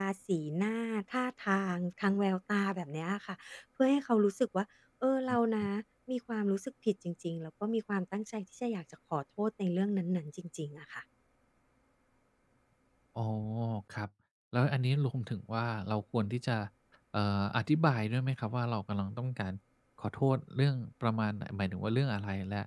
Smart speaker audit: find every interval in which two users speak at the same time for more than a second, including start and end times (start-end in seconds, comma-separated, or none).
none